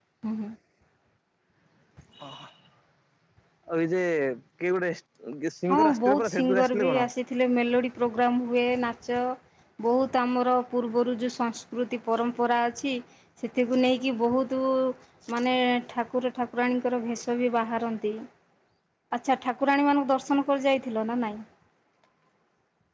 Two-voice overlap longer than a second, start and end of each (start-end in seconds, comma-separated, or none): 5.7-7.1